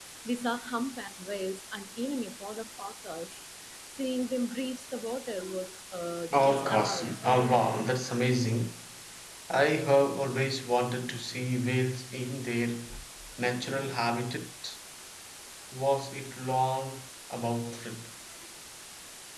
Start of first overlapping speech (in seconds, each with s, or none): 6.3 s